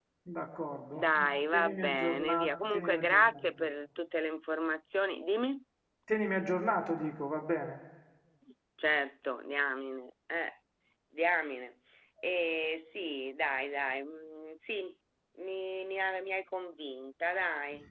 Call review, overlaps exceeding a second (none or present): present